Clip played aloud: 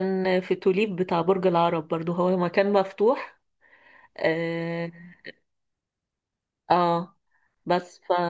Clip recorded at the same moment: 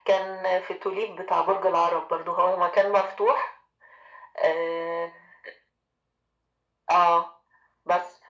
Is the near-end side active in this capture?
No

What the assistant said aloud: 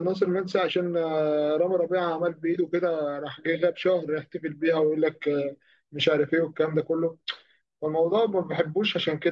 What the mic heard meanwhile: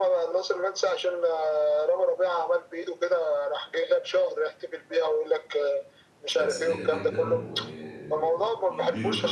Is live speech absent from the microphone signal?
No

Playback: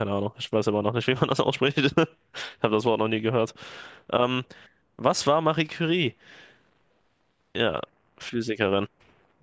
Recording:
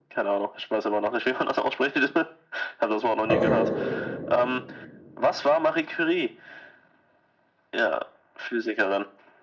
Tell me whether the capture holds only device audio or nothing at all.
No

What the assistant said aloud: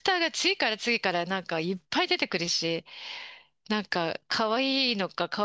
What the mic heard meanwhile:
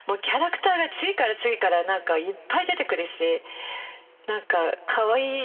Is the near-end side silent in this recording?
Yes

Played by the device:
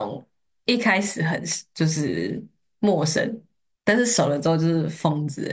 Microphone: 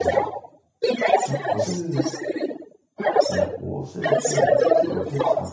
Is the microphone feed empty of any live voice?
No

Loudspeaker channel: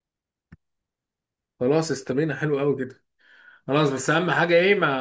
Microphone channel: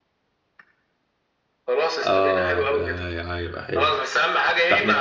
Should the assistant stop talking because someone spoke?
Yes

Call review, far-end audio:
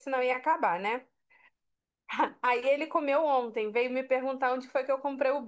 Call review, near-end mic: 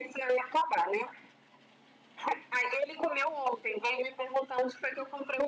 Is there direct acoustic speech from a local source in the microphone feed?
No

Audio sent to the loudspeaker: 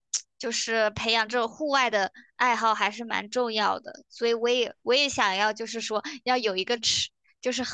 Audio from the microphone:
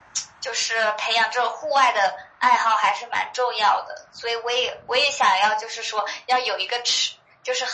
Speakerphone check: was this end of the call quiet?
Yes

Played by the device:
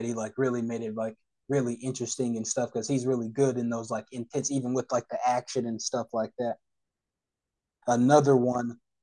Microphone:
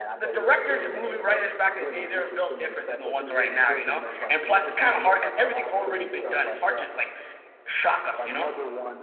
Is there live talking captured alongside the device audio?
Yes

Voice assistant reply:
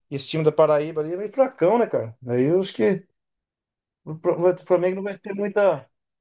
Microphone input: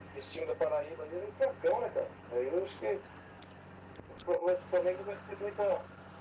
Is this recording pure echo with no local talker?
Yes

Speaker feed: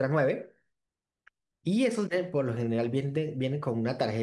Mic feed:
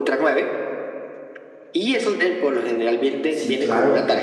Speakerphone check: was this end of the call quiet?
No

